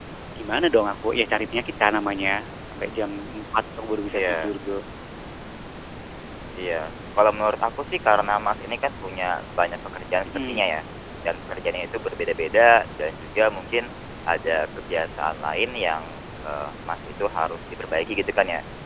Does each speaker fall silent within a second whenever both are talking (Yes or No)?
Yes